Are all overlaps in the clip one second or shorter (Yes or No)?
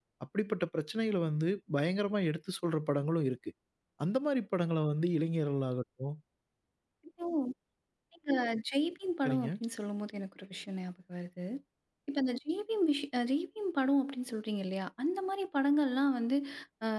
Yes